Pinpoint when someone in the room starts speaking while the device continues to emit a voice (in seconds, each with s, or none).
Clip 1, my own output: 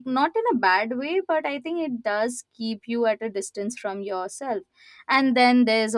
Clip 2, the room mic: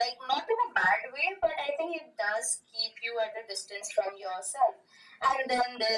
none